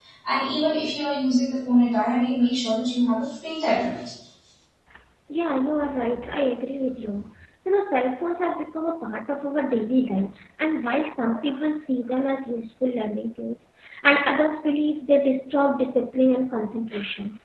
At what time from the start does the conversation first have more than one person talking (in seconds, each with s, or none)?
none